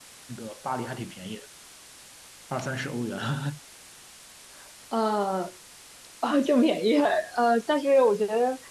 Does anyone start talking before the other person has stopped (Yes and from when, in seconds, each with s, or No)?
No